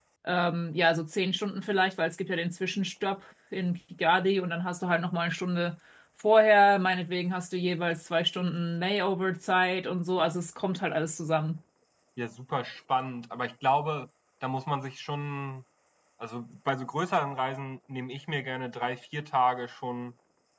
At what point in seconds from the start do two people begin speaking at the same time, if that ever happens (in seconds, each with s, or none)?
none